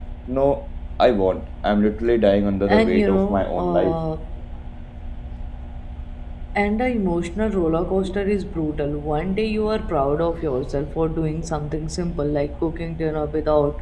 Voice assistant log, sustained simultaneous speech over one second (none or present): present